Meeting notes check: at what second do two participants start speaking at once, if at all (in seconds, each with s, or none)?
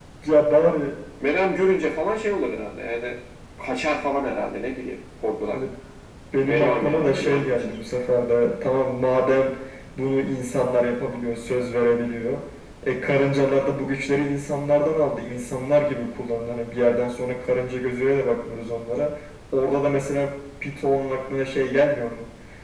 6.4 s